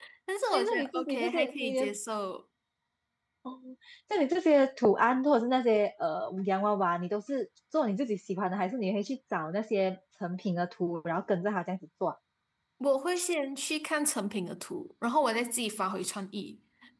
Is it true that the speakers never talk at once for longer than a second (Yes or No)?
No